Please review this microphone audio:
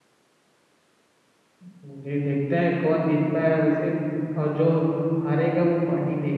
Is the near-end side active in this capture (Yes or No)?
Yes